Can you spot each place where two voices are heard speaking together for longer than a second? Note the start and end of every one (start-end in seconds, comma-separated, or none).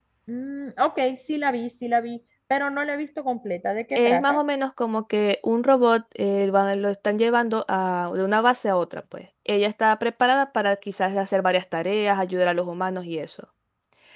none